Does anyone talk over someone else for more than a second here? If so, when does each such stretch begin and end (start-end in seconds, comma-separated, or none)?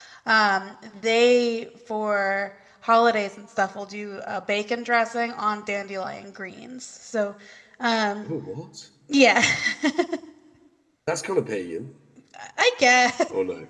none